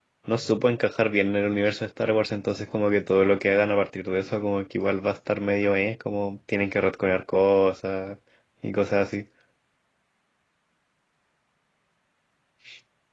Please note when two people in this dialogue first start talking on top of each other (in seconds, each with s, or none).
none